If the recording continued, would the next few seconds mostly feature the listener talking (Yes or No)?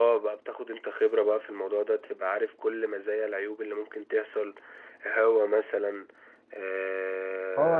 Yes